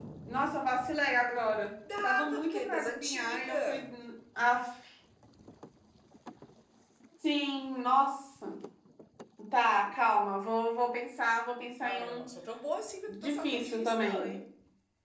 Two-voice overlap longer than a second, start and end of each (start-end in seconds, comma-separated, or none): 2.0-3.9, 13.1-14.4